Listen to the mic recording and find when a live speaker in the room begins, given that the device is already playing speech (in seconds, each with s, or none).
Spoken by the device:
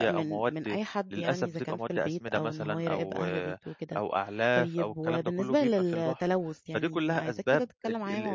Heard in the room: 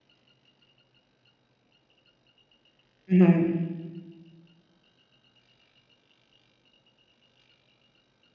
3.1 s